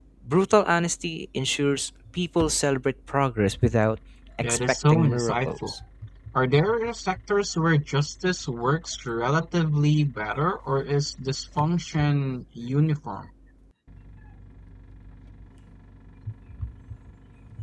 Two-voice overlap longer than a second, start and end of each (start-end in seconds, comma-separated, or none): 4.4-5.7